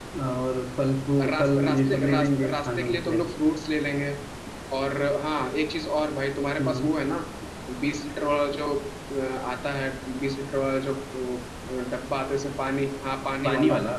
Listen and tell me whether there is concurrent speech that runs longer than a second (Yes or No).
Yes